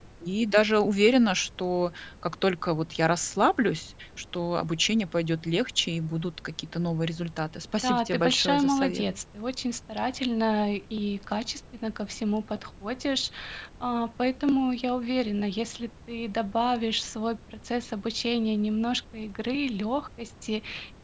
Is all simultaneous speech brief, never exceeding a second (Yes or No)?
No